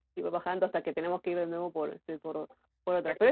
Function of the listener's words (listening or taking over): listening